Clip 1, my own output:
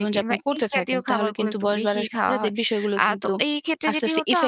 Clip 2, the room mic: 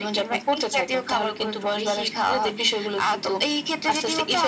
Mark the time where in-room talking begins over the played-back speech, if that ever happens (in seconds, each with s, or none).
none